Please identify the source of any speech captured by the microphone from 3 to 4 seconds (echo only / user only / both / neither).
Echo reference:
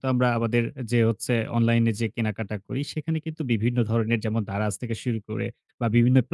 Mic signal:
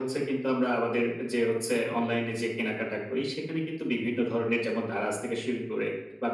echo only